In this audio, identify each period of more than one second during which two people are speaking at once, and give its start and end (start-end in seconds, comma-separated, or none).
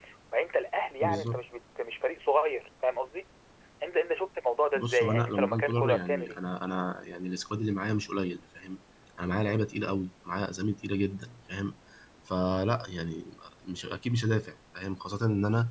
4.8-6.4